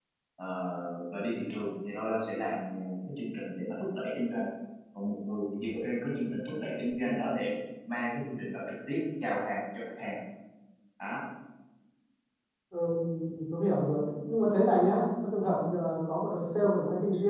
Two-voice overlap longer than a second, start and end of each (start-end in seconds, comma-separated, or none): none